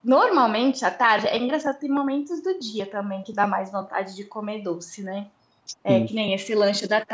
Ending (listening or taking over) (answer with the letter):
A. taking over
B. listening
B